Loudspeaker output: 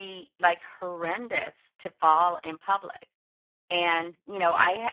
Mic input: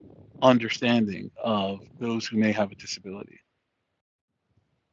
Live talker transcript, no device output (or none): understanding of those who may have a disability.